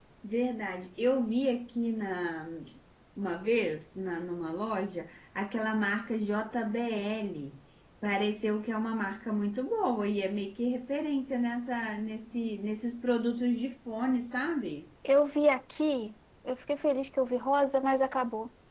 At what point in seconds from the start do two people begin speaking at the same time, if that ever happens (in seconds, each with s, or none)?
none